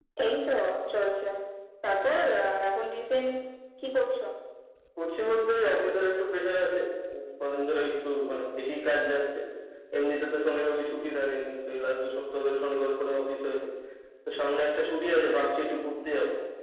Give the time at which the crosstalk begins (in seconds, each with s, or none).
none